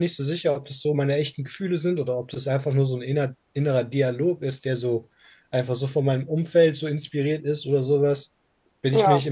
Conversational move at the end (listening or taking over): listening